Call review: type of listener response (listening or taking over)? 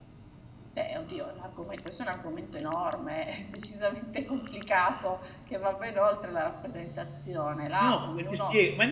taking over